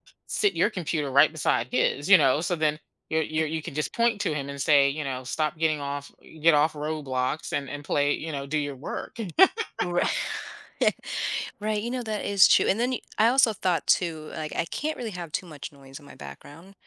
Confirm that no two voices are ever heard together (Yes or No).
Yes